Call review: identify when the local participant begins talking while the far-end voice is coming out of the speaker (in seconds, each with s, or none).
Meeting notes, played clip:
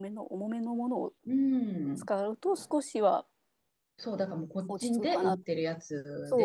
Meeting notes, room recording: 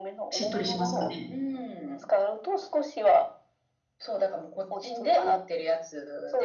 0.3 s